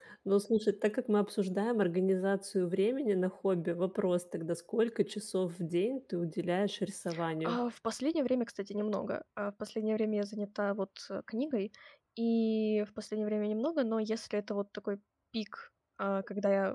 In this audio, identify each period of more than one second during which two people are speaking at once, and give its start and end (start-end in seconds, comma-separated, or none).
none